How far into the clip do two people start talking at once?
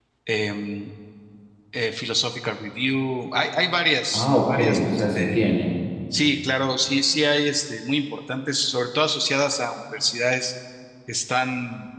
4.1 s

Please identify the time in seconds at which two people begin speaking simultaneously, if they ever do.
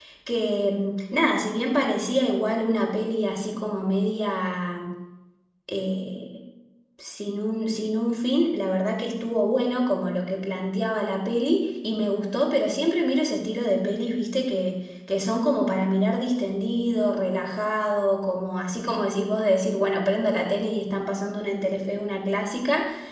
none

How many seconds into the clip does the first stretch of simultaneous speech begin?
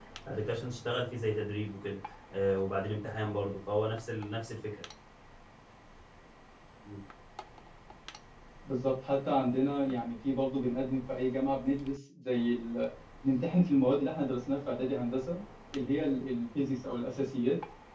none

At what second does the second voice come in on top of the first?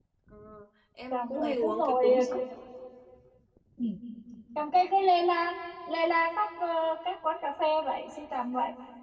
1.1 s

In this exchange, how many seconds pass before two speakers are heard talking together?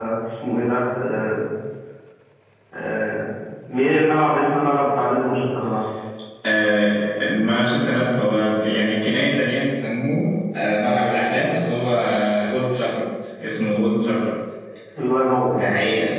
none

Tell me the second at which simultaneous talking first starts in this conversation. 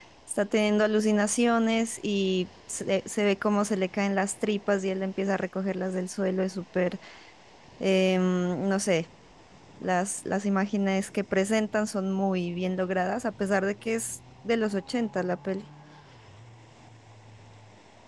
none

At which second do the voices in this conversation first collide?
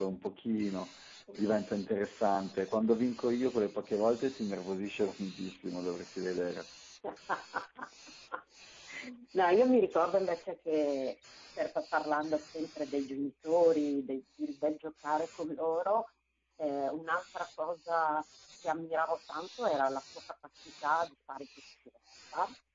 none

